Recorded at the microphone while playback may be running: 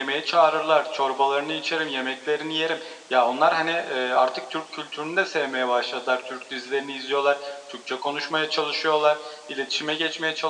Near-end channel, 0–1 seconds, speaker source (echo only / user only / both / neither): echo only